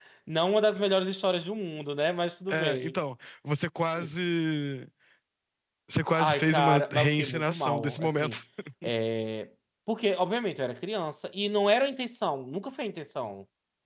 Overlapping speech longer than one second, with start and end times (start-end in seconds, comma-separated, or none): 6.1-8.4